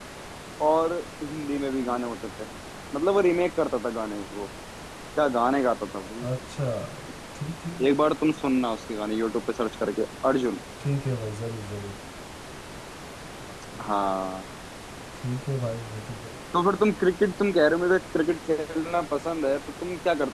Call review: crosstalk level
none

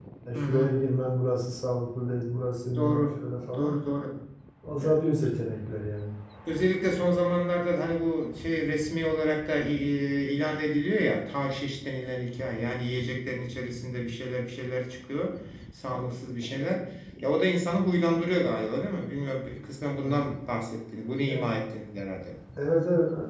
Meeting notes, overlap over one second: none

